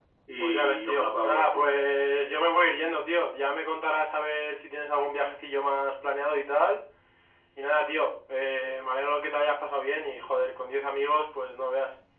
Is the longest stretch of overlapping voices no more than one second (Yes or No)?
No